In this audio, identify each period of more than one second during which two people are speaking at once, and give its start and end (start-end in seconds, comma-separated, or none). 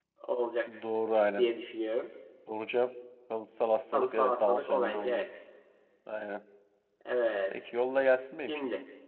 3.9-5.2